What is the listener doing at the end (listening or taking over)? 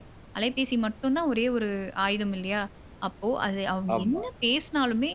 listening